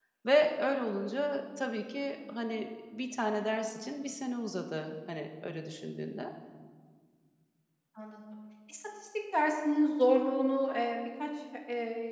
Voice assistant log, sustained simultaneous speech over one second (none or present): none